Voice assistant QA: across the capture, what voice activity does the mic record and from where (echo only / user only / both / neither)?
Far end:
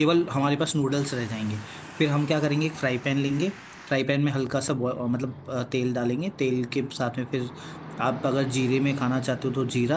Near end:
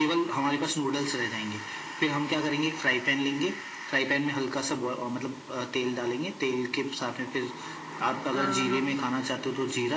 both